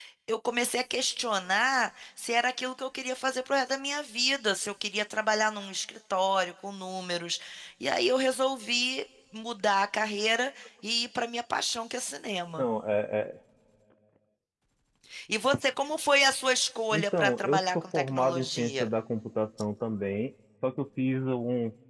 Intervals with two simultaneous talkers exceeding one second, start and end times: 16.9-18.9

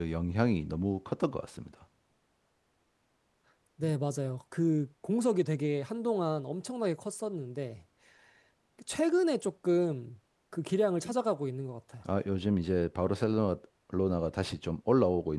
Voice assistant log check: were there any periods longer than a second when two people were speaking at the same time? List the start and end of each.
none

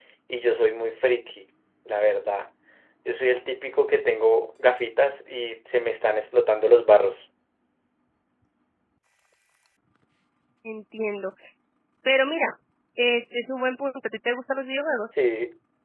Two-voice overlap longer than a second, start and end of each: none

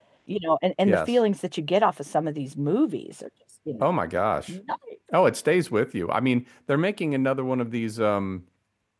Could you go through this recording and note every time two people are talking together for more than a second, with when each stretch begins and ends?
none

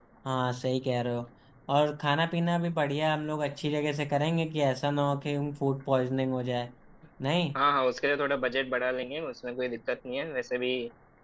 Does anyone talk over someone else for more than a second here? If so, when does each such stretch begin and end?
none

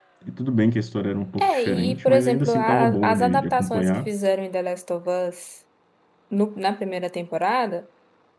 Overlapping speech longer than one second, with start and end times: 1.4-4.1

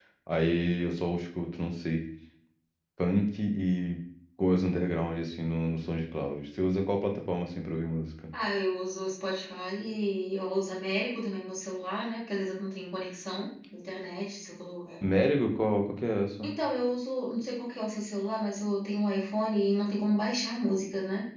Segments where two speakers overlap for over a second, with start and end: none

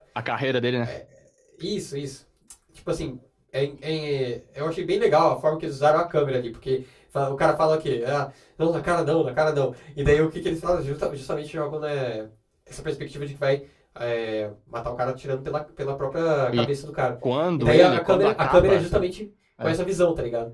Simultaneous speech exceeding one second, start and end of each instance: 17.6-18.9

